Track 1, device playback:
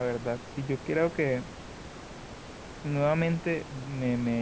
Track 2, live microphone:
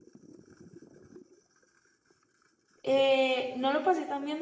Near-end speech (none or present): present